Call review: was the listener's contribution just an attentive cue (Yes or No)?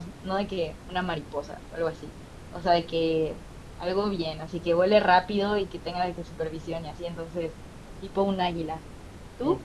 No